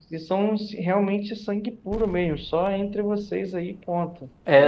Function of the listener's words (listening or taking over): taking over